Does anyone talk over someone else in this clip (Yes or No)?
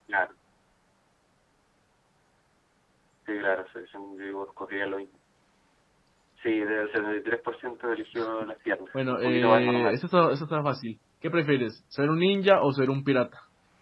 Yes